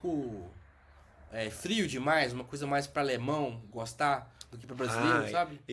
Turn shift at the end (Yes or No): Yes